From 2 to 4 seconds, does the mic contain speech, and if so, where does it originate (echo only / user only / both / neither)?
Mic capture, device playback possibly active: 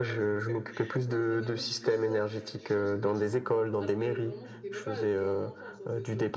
both